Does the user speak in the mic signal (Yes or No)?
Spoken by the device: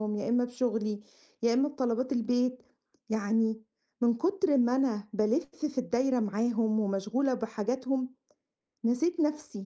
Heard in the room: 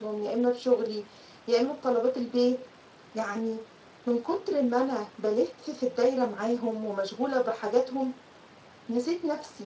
No